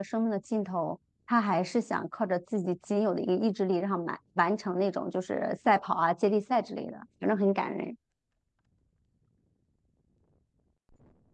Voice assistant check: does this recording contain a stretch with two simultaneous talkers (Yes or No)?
No